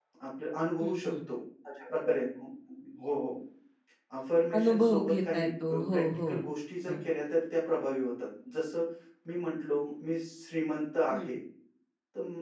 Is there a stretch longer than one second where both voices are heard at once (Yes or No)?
Yes